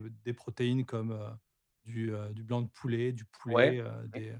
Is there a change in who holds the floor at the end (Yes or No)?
No